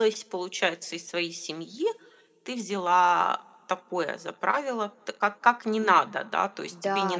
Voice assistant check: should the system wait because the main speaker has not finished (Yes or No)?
Yes